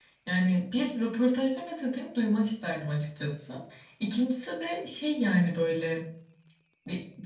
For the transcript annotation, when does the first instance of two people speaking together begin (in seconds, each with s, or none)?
none